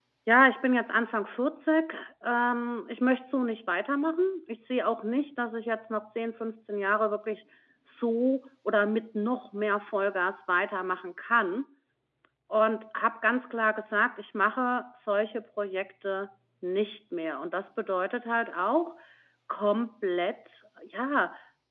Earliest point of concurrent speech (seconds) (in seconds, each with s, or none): none